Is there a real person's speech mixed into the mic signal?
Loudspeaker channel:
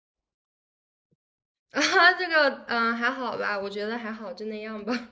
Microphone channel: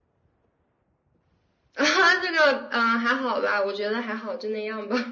No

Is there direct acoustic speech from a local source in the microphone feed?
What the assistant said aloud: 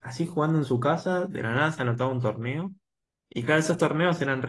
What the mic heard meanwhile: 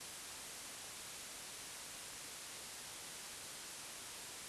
No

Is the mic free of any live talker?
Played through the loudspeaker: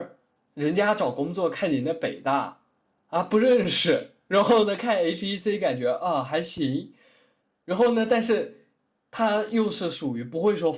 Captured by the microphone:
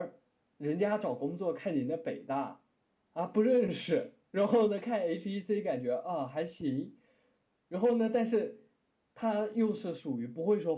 Yes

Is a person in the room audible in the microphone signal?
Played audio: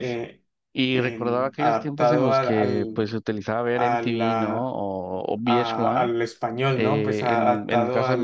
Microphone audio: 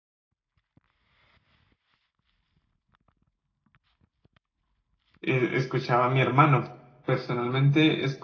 Yes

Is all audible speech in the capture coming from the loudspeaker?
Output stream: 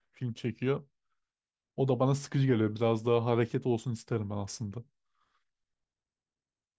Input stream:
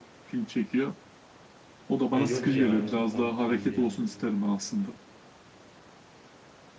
No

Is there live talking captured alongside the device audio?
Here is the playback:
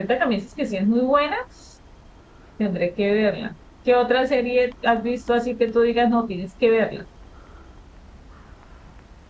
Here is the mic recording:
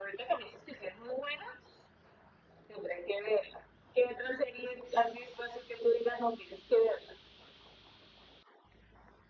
No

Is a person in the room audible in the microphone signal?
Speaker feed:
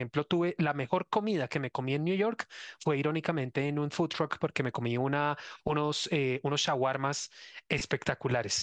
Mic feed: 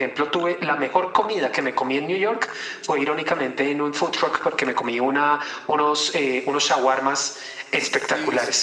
Yes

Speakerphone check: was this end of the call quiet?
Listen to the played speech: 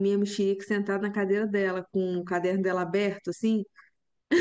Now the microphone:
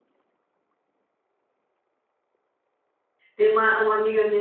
No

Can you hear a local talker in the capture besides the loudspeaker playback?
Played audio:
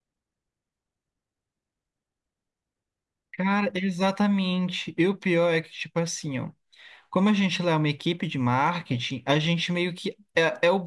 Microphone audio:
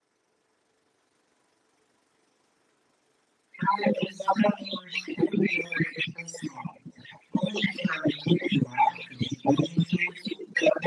No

